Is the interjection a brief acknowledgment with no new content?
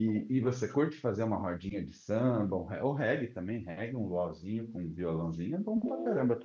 No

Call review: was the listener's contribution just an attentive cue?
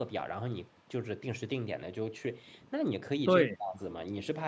Yes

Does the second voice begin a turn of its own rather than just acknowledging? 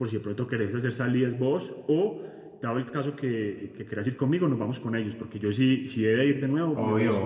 Yes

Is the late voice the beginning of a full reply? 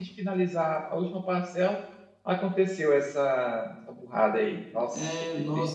Yes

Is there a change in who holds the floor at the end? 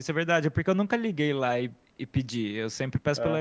No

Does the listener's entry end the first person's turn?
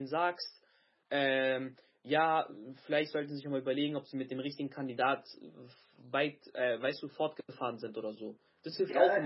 Yes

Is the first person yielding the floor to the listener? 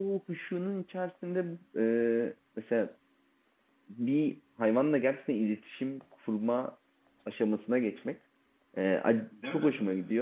No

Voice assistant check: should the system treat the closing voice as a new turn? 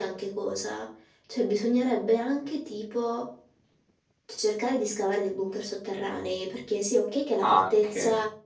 No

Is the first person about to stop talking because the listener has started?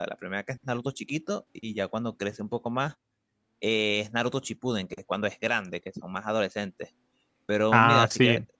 Yes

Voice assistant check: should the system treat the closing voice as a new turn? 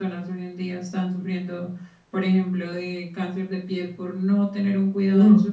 Yes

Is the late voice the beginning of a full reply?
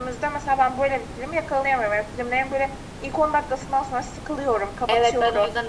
Yes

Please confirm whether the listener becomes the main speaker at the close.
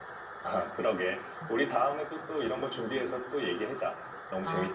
Yes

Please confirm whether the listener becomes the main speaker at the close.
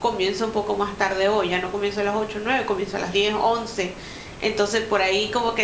No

